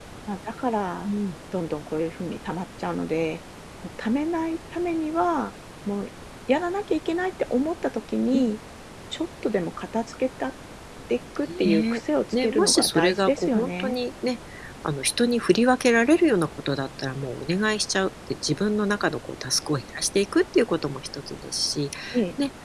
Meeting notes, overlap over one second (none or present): present